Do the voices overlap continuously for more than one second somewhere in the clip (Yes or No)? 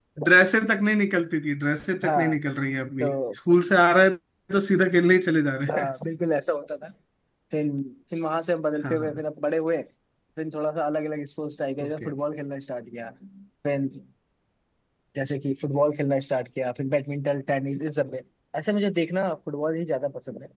No